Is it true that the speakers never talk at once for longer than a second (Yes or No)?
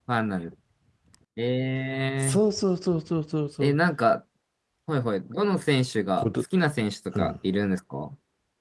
Yes